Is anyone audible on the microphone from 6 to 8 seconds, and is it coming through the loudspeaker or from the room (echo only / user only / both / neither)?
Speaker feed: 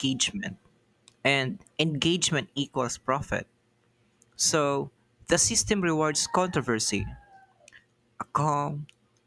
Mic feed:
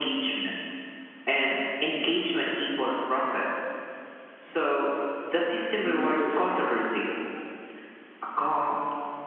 both